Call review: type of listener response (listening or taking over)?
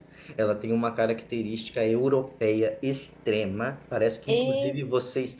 listening